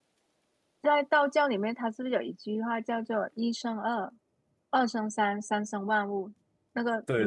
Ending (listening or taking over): taking over